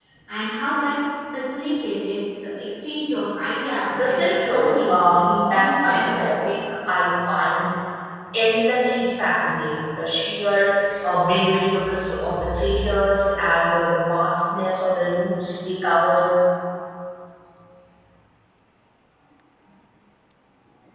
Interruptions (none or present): present